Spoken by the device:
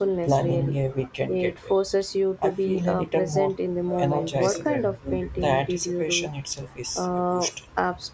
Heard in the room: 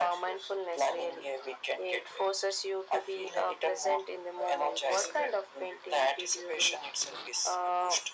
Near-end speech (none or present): none